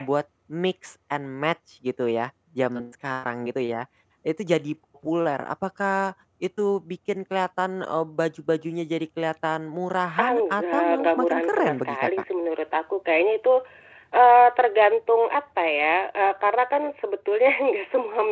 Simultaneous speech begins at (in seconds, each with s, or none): 10.2 s